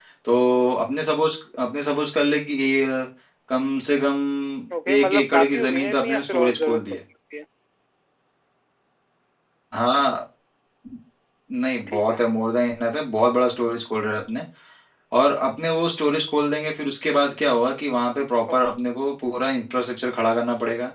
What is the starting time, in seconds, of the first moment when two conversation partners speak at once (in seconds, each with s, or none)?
5.0 s